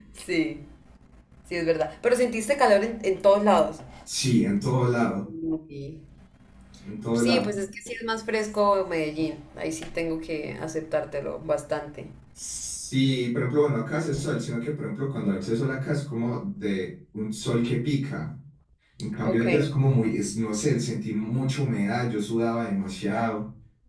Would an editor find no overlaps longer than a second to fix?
Yes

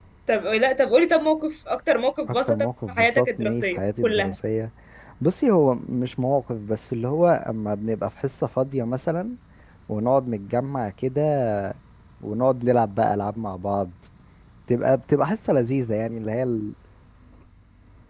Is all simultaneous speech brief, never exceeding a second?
No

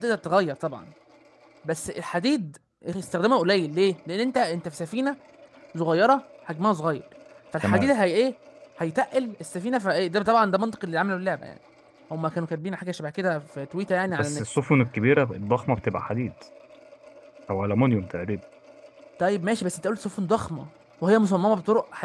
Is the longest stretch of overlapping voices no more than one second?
Yes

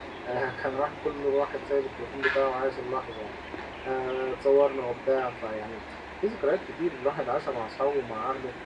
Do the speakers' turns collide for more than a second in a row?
No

